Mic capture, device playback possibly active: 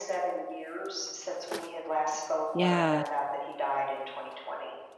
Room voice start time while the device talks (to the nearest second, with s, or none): 3 s